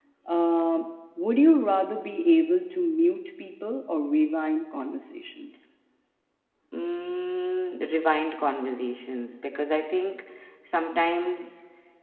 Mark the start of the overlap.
none

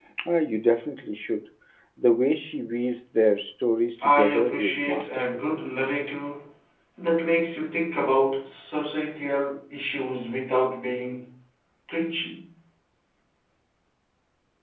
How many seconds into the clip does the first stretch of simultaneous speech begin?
4.0 s

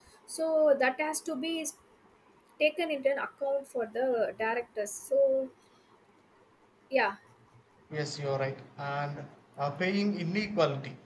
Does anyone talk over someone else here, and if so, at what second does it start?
none

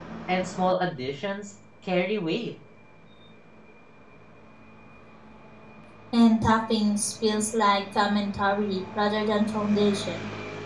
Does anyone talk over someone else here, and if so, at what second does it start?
none

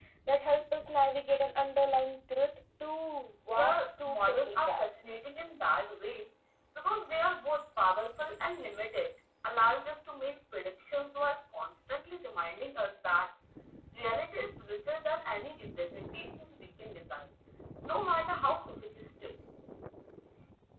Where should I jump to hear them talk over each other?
3.5 s

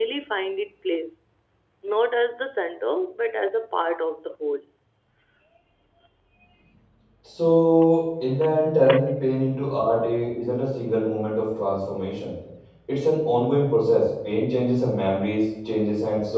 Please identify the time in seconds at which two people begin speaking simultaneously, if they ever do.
none

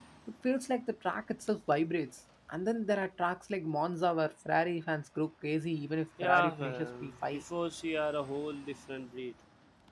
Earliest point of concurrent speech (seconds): 6.2 s

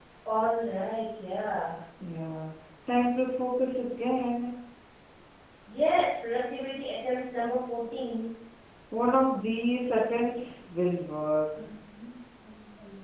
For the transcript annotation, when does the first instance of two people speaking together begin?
none

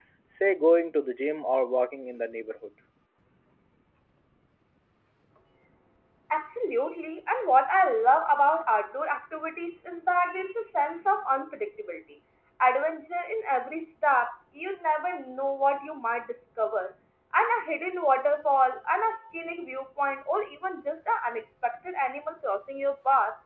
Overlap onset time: none

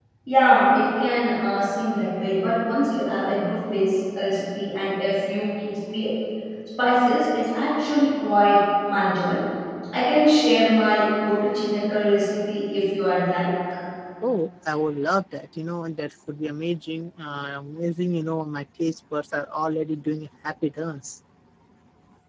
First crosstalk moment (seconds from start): none

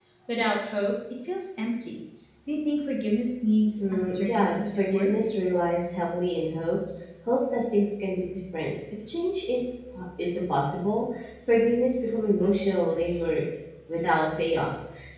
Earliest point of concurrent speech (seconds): 3.8 s

